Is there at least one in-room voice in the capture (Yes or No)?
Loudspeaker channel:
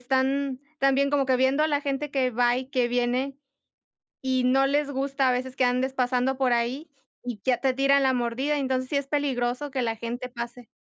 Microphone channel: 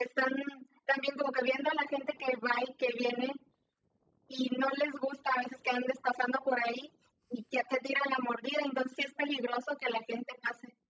No